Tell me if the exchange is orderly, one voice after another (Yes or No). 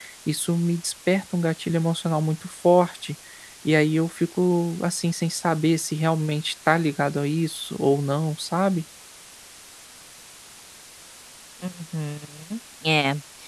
Yes